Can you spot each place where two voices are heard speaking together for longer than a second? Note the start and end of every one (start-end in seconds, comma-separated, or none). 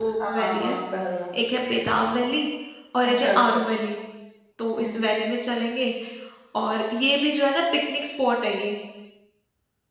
none